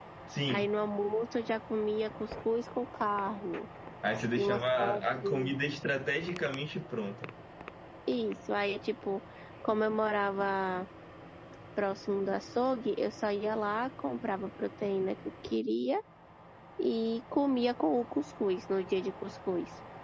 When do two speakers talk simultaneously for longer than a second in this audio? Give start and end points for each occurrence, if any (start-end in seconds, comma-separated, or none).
4.3-5.6